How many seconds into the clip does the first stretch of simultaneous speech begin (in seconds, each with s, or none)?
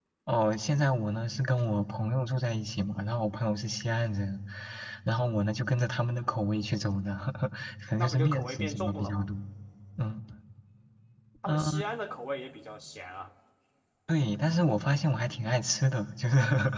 8.0 s